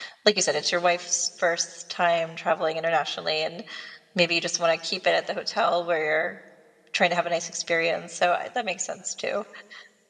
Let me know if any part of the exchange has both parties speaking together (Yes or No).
No